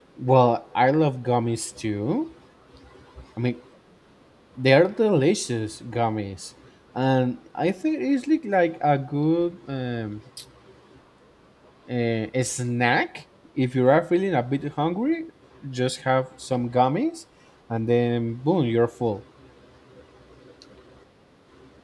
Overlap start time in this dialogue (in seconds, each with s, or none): none